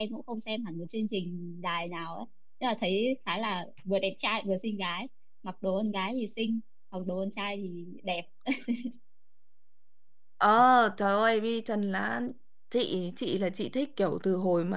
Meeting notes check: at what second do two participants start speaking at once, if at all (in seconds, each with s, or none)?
none